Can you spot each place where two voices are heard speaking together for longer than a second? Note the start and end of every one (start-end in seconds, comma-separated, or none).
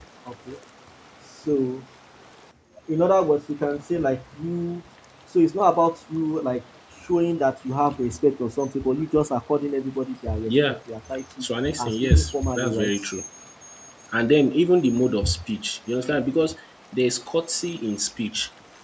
11.4-13.0